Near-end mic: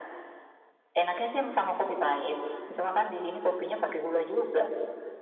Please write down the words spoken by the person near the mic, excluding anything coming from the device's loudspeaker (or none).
none